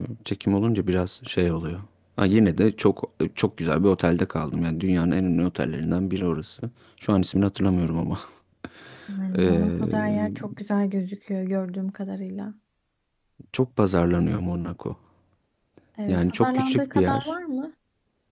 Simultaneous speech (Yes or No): Yes